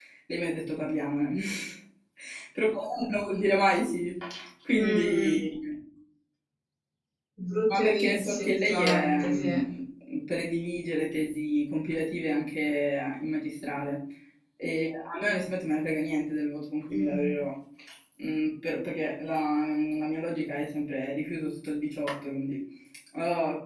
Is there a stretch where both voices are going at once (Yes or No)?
Yes